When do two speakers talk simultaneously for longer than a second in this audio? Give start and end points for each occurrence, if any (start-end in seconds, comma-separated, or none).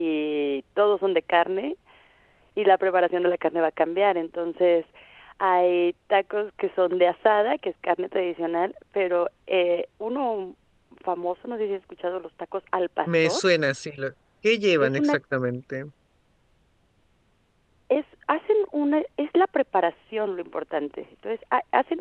none